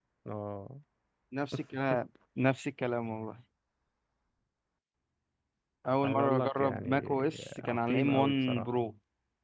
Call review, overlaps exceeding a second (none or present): present